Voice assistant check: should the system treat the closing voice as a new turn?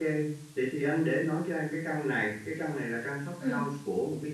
No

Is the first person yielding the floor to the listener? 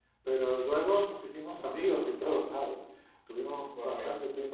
No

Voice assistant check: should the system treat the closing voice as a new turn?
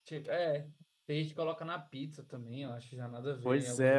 Yes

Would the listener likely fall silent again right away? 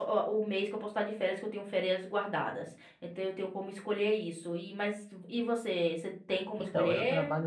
No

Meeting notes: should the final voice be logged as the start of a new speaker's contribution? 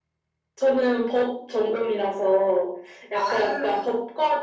No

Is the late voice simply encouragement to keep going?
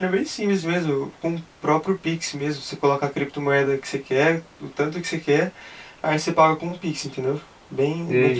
No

